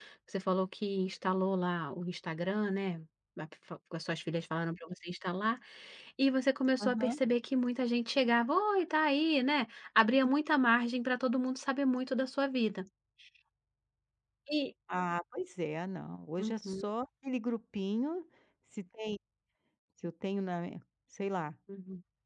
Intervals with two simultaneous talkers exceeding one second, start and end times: none

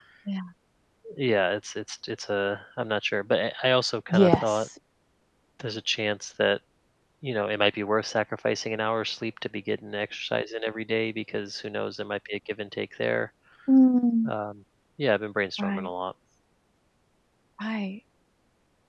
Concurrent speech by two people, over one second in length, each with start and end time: none

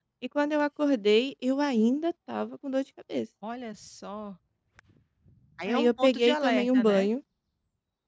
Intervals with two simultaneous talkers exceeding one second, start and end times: 5.7-7.1

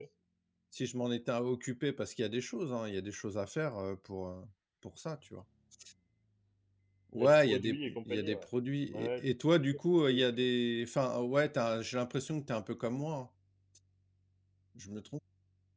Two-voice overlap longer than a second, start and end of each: 7.2-8.4

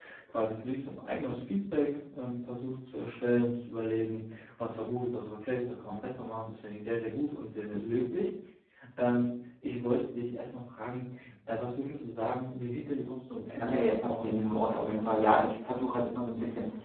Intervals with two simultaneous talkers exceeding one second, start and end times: 13.5-15.1

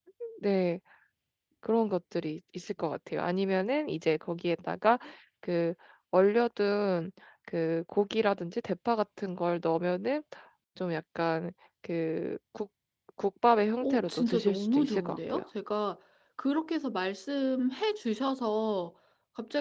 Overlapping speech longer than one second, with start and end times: 13.8-15.4

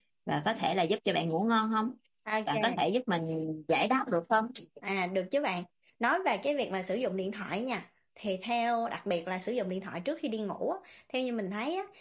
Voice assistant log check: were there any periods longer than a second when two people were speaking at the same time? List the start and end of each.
none

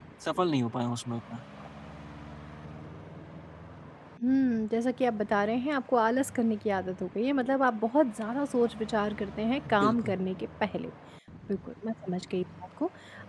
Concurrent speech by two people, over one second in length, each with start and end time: none

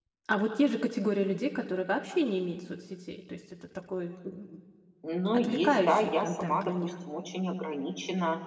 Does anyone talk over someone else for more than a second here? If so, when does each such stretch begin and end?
5.3-6.9

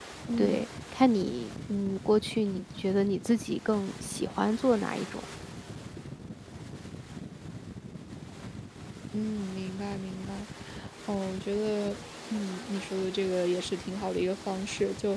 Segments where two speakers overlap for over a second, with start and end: none

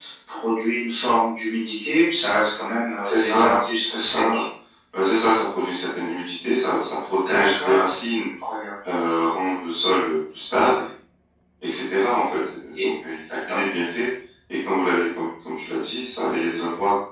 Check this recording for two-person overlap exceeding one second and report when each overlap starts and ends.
3.0-4.4

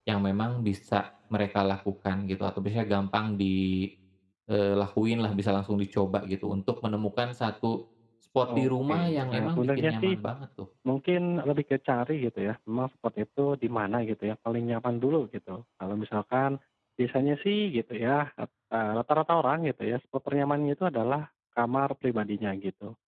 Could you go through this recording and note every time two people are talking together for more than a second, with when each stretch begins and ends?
8.6-10.2

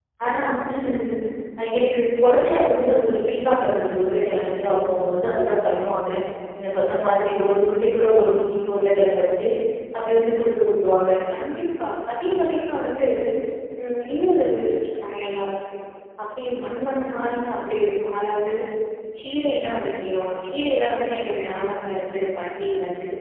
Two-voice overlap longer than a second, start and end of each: none

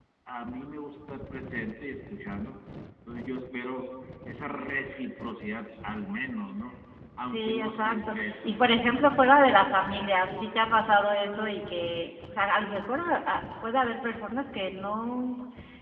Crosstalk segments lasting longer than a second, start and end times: 7.2-8.8

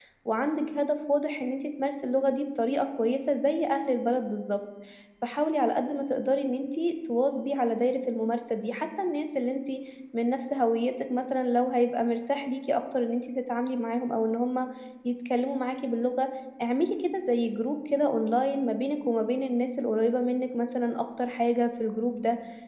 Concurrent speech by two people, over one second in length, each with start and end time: none

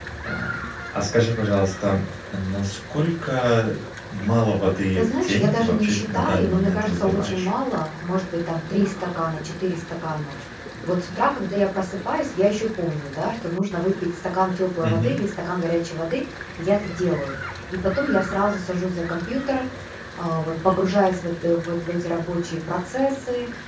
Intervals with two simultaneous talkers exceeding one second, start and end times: 5.0-7.5

